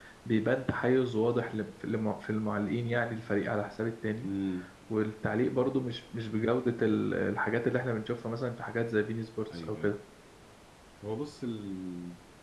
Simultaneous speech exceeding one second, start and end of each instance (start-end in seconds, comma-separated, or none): none